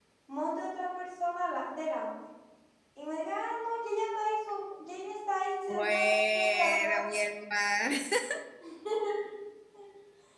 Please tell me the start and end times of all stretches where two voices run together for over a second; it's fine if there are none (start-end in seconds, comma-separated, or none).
5.7-7.0